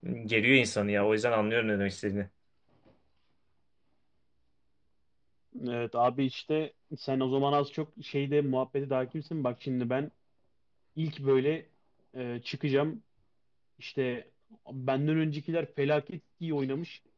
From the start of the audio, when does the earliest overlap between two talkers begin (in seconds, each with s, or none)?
none